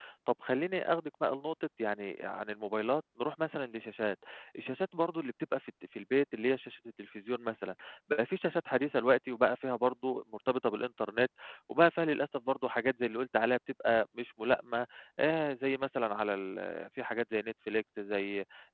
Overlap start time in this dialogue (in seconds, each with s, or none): none